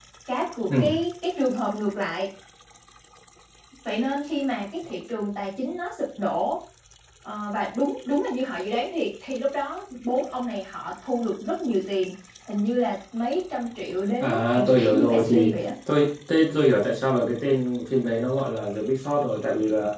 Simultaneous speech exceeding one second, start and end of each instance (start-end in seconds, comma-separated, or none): 14.2-15.6